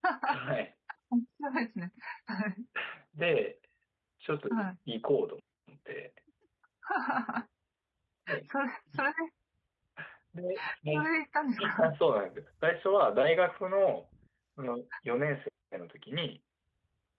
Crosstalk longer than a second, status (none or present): none